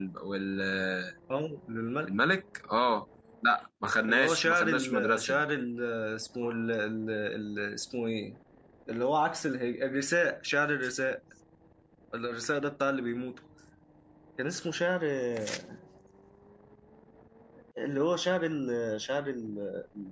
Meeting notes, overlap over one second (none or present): present